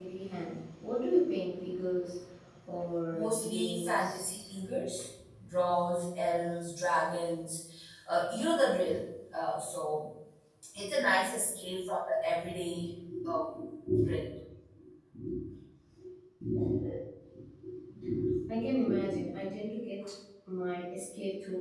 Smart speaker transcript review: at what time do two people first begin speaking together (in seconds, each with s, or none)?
3.1 s